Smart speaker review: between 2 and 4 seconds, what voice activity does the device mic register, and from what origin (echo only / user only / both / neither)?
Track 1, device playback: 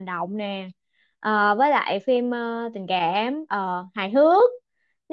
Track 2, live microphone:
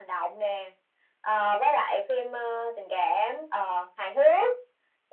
echo only